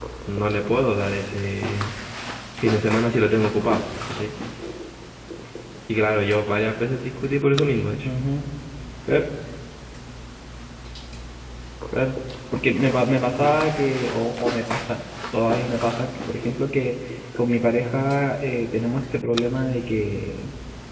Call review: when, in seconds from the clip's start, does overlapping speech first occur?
none

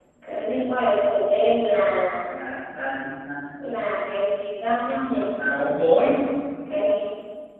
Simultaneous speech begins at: none

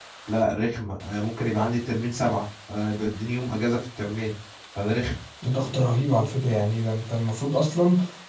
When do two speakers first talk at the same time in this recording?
none

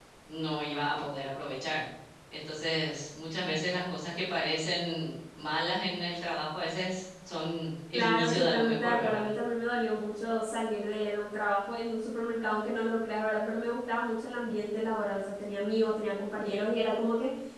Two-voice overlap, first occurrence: 8 s

